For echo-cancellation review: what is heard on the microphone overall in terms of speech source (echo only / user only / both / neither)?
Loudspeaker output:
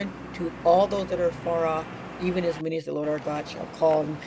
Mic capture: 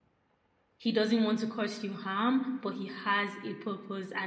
user only